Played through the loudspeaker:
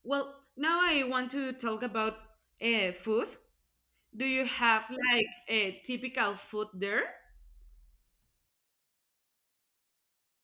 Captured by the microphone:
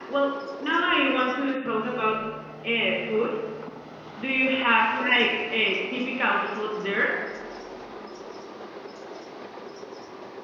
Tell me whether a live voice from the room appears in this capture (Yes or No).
No